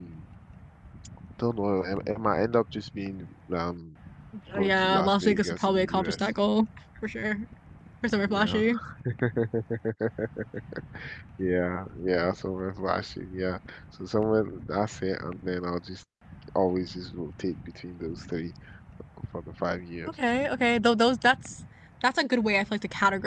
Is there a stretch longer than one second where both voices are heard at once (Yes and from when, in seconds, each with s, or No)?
Yes, from 4.6 s